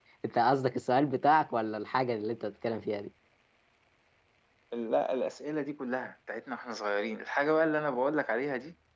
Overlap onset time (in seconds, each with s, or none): none